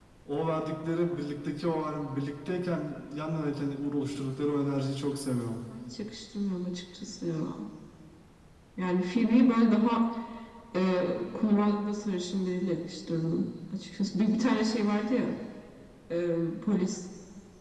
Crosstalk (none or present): none